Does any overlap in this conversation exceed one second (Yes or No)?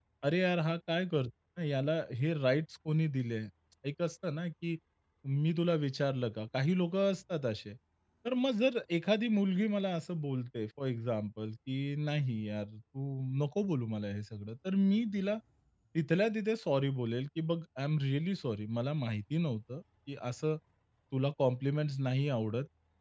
No